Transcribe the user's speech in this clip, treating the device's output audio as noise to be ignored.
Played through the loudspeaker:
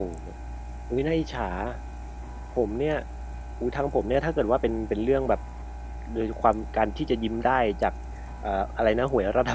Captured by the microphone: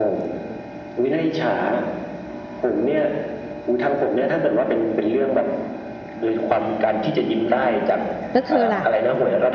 แล้วเธอล่ะ?

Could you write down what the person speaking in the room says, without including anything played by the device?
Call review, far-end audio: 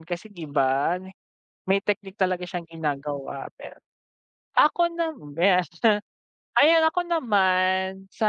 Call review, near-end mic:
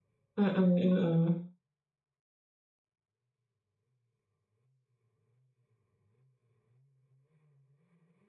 Mm, mm.

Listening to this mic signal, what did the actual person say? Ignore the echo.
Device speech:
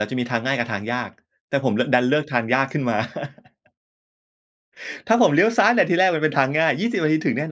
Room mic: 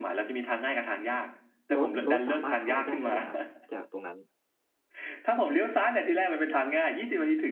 รถ รถสามารถเข้ามาได้ด้วยเหรอครับ จากตรงนั้น?

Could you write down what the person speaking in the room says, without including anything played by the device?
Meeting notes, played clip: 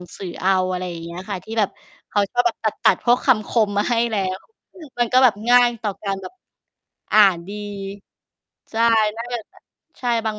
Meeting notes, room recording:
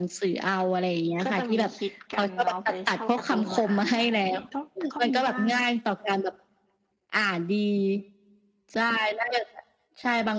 ก็จะมีฮิตกันเนาะไปเช่าการ์ตูนมาอ่าน อะไรอย่างเงี้ย ก็ ก็มีบ้าง

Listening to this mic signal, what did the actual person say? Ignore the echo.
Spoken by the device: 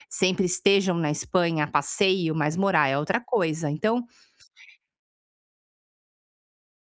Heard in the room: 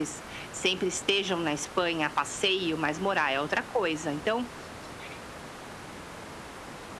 none

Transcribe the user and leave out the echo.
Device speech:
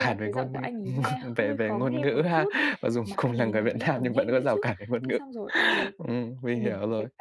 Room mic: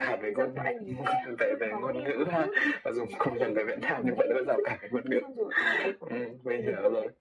none

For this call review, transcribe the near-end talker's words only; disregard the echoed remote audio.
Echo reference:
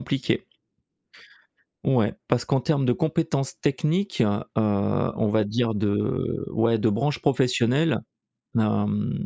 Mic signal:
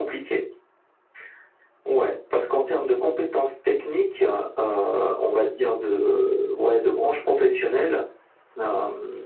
none

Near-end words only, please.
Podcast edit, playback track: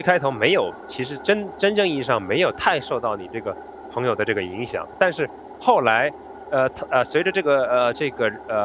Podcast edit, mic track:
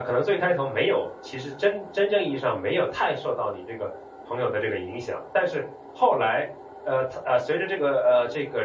none

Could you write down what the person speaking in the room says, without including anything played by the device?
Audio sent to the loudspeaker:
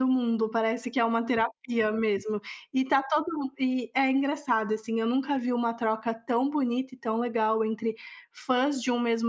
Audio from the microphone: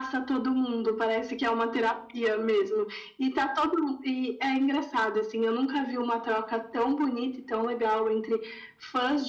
none

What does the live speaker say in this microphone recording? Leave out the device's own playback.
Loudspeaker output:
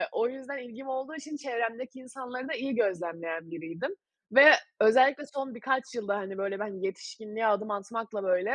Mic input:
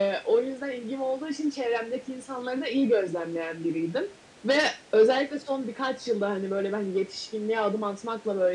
none

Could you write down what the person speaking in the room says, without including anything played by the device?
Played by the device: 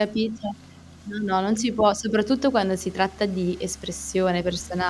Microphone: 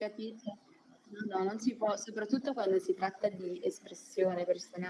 none

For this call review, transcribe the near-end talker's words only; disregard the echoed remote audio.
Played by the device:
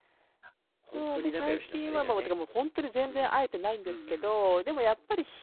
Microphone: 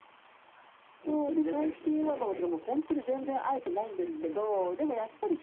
none

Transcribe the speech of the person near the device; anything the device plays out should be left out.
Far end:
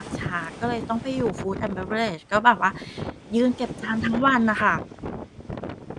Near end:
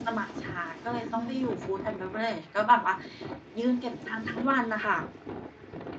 อะฮะ

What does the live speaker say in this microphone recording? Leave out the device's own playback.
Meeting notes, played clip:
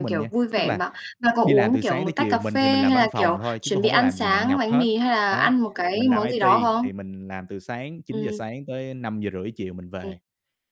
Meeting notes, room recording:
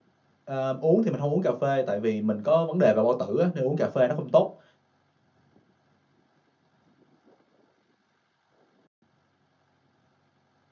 ờ, uống thì mình hông uống cà phê, tại vì mình có vấn đề về bao tử á, nên uống cà phê nó không tốt,

